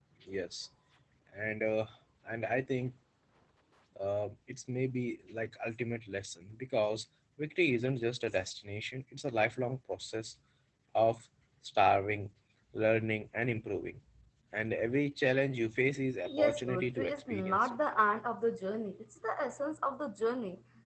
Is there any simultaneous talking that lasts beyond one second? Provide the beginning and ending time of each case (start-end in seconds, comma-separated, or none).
16.3-17.8